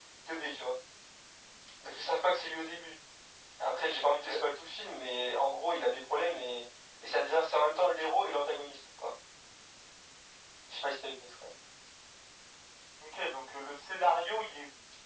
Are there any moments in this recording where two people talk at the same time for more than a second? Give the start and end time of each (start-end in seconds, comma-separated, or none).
none